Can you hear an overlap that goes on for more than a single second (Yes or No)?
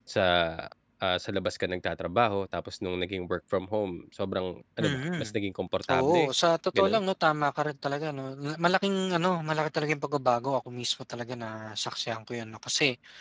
No